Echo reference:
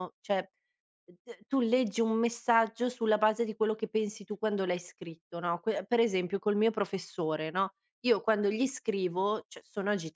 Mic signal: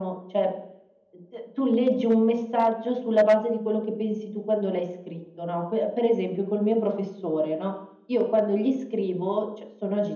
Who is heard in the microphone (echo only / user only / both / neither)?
echo only